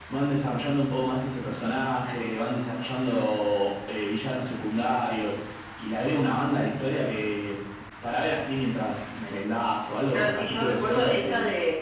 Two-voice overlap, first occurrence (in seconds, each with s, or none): 10.1 s